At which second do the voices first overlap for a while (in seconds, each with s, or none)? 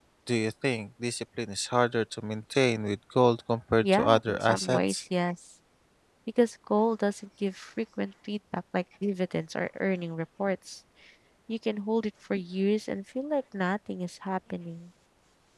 3.8 s